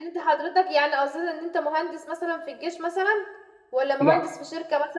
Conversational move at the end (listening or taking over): listening